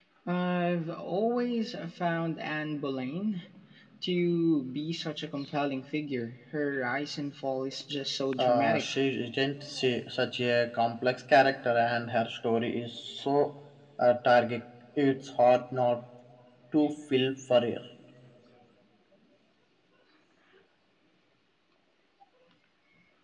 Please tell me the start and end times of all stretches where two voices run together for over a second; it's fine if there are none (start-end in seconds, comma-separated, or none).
none